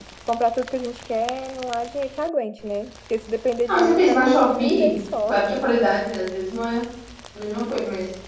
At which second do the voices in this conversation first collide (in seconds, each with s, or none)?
3.7 s